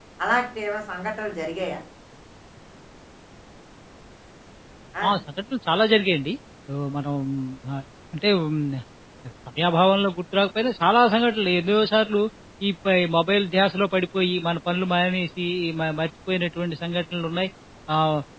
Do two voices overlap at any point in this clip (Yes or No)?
No